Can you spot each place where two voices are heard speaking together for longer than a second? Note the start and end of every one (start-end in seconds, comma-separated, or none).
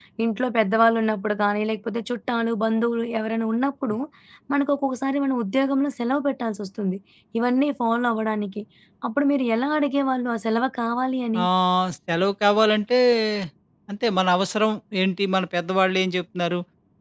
none